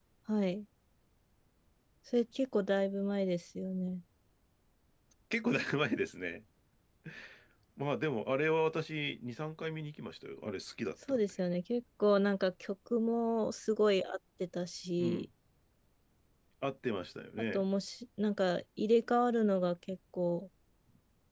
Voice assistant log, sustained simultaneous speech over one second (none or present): none